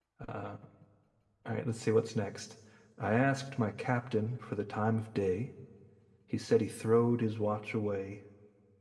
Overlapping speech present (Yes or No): No